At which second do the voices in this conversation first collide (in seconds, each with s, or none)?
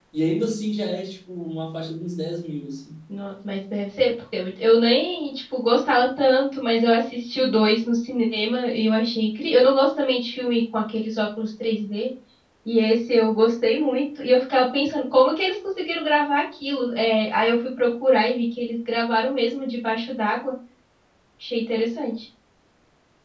none